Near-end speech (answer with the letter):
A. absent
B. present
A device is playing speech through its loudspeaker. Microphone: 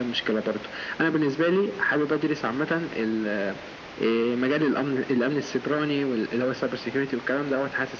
A